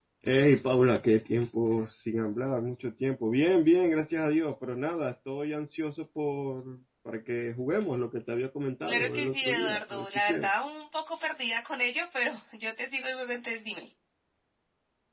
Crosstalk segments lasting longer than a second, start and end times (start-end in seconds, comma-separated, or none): 8.9-10.5